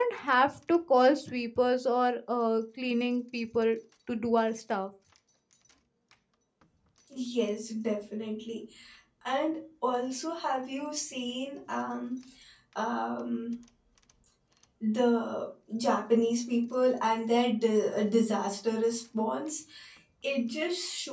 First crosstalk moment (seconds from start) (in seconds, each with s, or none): none